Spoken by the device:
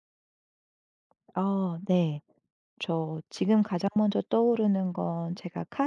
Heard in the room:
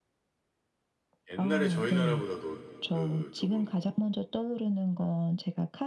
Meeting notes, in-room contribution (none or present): present